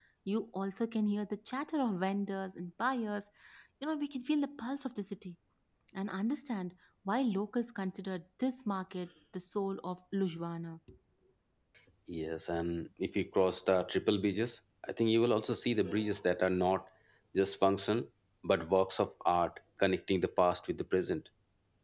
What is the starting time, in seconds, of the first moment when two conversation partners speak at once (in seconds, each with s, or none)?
none